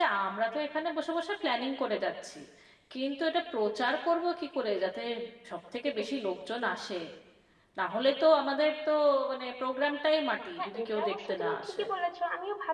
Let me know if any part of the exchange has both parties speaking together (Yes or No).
Yes